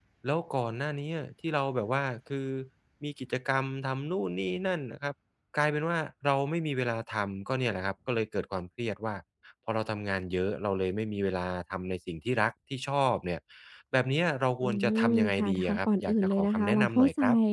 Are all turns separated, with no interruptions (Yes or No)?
No